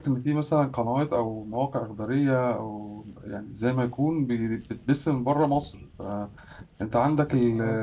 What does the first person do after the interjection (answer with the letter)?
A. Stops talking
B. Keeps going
B